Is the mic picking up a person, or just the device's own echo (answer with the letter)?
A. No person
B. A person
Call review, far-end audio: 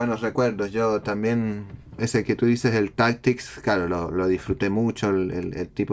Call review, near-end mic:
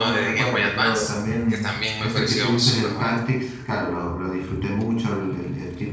B